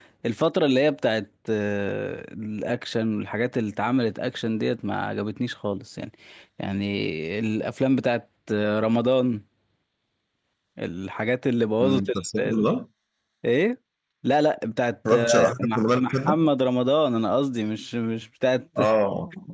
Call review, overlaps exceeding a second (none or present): present